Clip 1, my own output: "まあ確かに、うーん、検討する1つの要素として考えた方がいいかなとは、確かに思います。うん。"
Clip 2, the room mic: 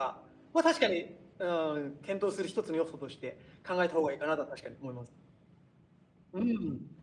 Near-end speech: none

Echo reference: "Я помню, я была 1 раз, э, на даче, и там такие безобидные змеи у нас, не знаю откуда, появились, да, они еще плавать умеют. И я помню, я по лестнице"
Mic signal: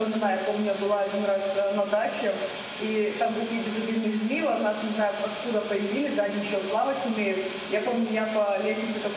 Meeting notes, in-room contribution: none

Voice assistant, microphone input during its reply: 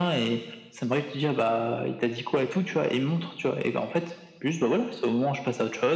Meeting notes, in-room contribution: none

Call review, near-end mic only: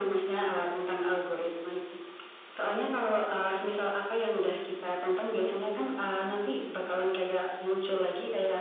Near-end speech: none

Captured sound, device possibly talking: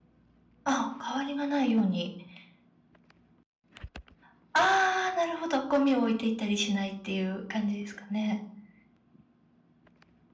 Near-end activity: present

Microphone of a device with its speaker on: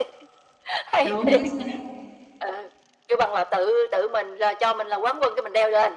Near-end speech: present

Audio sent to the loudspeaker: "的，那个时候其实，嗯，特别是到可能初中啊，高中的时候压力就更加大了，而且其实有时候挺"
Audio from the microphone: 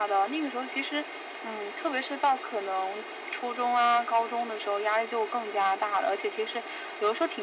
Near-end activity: none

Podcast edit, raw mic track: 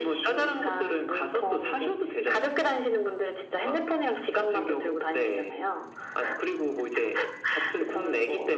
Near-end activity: none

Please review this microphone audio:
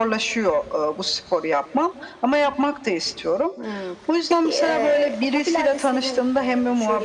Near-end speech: none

